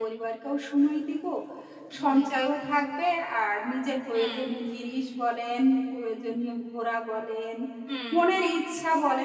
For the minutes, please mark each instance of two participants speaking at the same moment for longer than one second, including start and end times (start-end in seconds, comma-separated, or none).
none